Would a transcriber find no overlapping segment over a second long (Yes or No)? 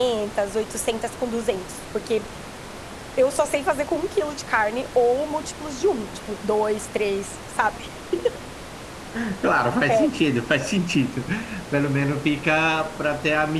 Yes